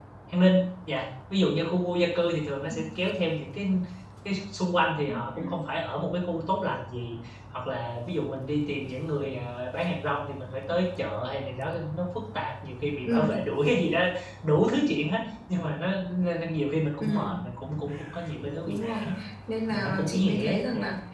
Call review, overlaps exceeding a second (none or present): present